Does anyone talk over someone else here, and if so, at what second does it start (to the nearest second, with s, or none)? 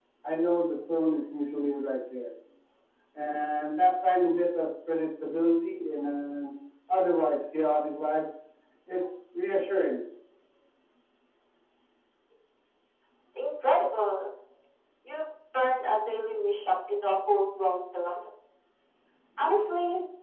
none